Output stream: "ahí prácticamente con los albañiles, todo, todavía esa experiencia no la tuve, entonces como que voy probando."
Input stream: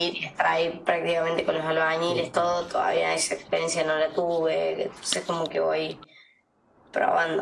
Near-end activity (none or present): present